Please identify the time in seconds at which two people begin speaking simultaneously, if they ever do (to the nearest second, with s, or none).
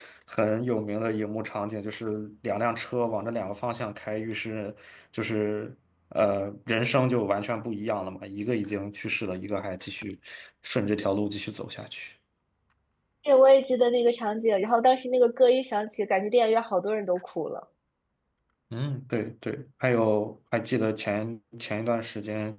none